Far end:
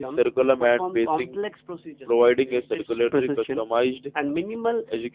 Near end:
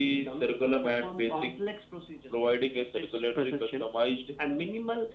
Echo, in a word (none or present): present